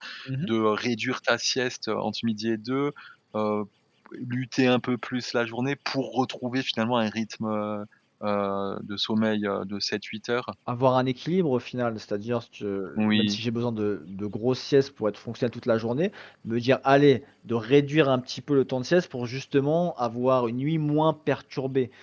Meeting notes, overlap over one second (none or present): none